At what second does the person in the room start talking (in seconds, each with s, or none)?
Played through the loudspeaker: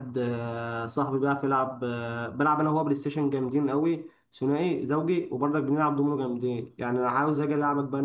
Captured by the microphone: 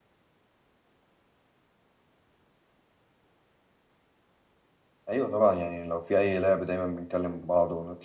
5.1 s